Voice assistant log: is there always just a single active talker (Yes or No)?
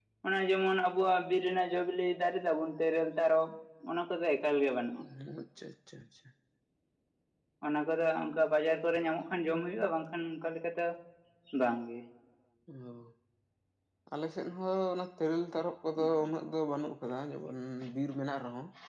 Yes